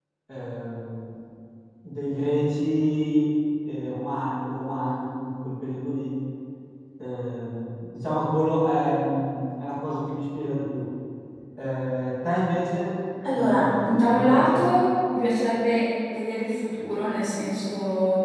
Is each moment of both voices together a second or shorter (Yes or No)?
No